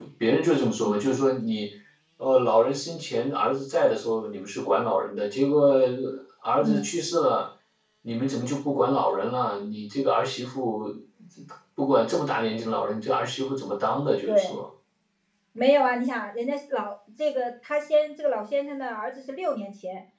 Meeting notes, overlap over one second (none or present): none